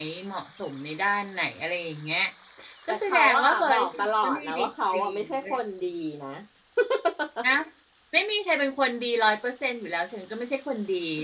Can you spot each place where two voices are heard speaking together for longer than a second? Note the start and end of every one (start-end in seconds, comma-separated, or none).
2.9-5.6